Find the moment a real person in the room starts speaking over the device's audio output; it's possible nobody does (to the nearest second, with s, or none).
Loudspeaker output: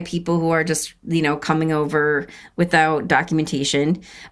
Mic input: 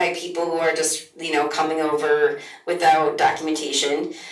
none